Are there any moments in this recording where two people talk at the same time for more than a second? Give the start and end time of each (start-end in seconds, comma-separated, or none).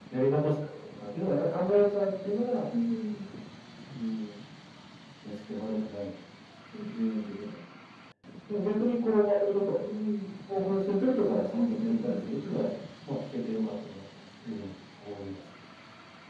11.2-12.7